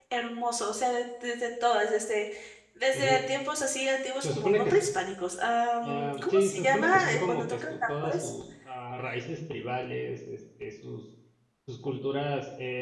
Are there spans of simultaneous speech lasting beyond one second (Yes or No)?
Yes